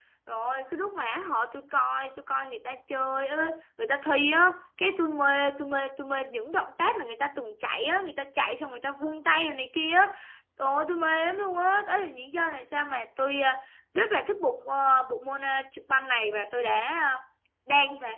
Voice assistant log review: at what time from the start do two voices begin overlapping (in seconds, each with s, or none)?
none